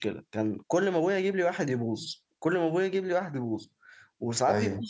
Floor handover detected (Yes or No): No